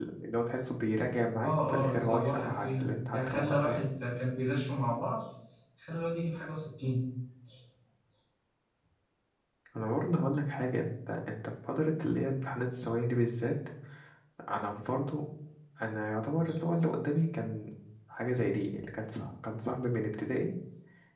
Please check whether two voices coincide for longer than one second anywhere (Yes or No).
Yes